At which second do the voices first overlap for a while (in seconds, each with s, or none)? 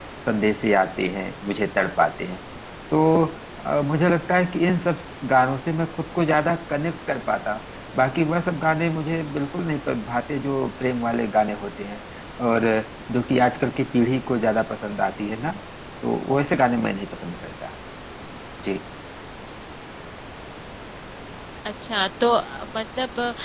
none